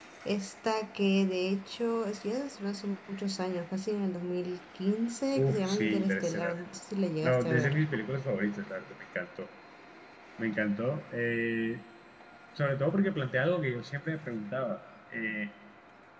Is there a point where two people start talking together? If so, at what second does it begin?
5.3 s

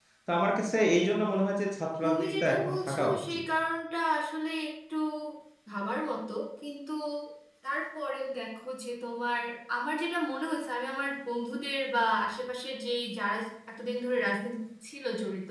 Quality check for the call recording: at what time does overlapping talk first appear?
2.0 s

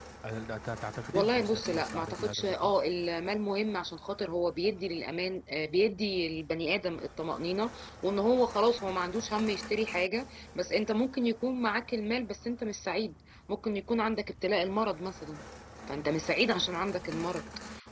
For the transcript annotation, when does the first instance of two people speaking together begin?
1.1 s

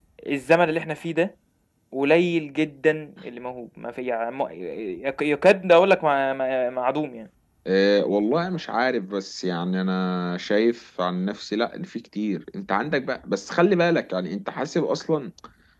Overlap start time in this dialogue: none

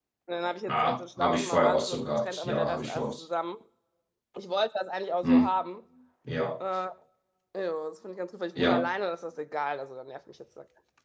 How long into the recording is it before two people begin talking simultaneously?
0.7 s

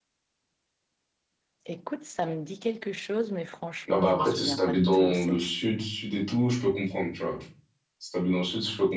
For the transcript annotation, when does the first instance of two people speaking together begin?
3.9 s

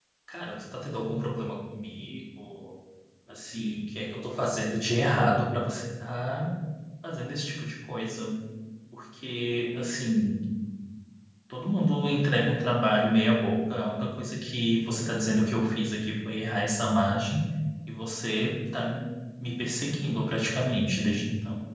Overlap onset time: none

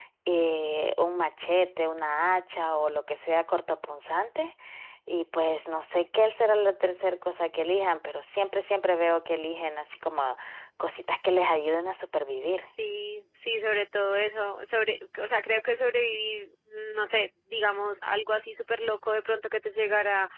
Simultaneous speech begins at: none

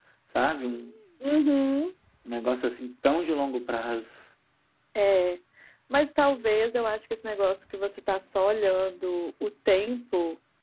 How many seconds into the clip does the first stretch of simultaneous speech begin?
none

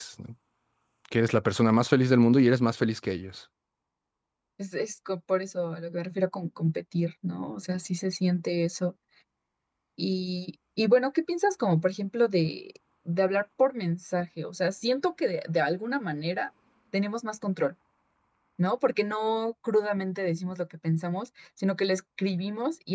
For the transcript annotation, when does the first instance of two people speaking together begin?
none

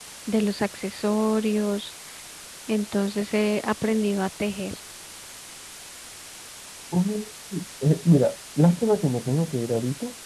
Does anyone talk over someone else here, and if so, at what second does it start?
none

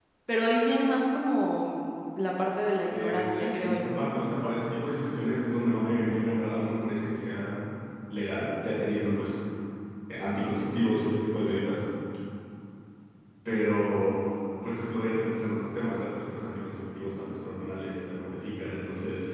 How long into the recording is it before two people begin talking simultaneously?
2.9 s

